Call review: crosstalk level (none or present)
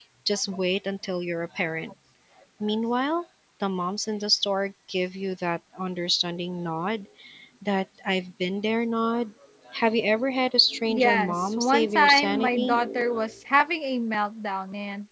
present